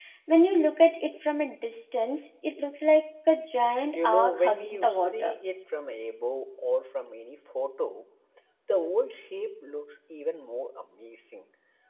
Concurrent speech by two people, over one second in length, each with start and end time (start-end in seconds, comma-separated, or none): 3.9-5.3